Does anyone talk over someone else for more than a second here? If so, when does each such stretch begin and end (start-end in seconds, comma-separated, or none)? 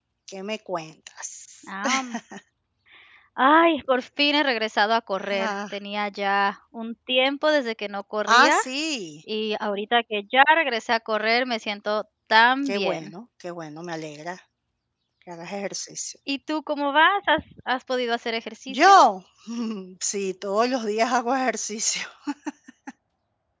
none